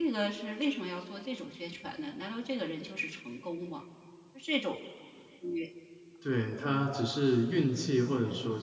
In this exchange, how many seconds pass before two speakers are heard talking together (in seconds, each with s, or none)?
none